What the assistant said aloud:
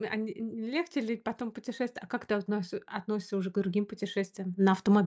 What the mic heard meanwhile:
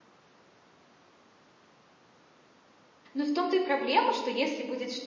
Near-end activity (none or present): present